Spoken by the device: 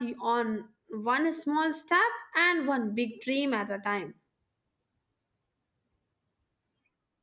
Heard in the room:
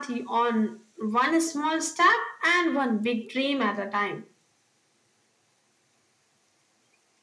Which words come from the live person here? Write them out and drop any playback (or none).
none